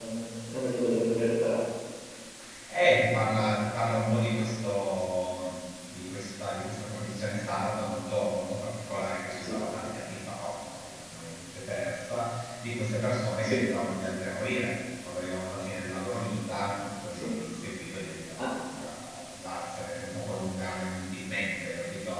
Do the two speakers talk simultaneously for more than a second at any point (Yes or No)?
No